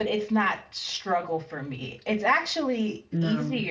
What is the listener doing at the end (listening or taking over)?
listening